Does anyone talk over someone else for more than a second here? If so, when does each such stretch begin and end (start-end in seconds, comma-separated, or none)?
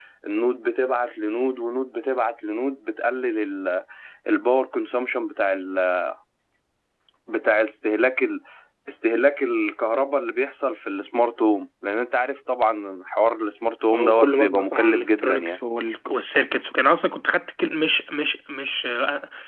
13.9-15.6